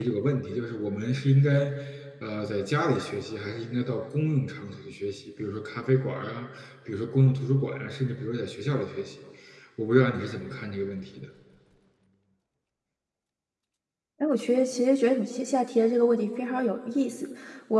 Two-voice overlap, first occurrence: none

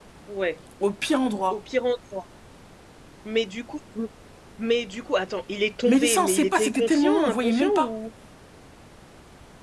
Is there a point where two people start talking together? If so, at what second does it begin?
5.9 s

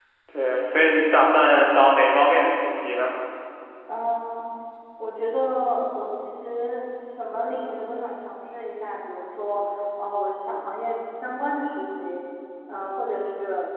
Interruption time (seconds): none

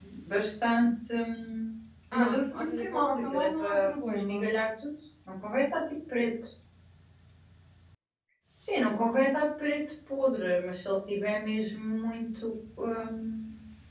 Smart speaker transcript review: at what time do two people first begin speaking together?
2.1 s

